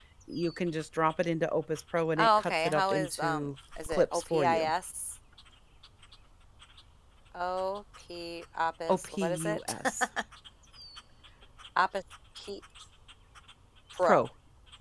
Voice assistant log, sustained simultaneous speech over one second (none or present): present